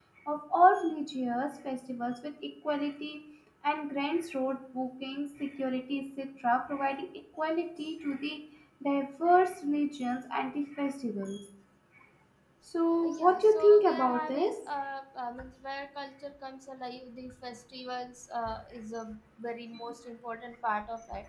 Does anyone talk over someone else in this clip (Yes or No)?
Yes